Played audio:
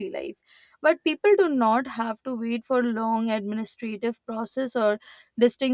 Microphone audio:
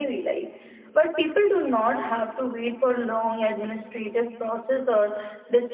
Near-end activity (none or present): none